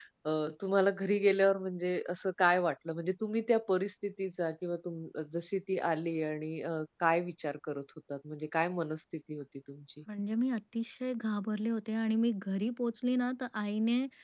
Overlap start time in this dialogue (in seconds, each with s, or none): none